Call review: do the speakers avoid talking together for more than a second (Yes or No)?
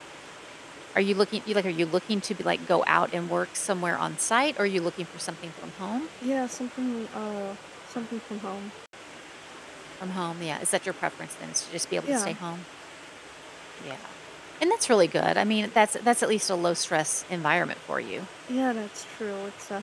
Yes